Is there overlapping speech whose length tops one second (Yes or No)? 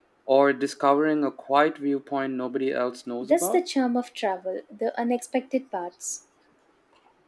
No